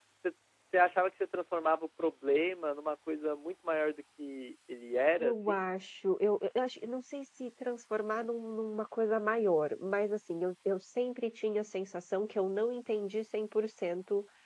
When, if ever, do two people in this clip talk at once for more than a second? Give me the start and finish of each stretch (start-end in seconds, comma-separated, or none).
none